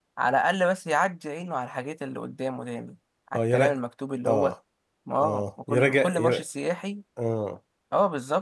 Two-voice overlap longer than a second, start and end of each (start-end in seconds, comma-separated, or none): 5.2-6.4